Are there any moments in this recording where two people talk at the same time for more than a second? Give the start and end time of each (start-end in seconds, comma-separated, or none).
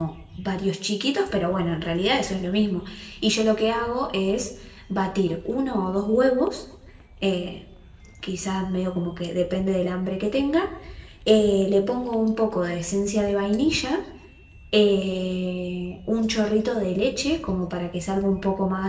none